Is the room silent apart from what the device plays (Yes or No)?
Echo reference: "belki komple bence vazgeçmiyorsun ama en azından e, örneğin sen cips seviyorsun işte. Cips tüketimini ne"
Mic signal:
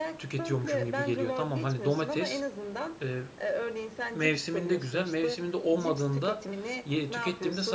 No